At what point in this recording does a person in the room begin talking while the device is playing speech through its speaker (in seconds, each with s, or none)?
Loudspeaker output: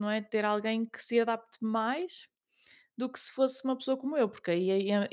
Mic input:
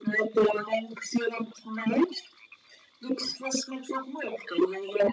none